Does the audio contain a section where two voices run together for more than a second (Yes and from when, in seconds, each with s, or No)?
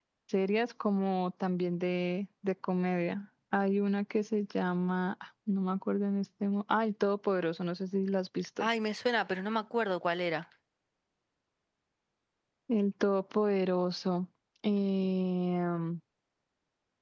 No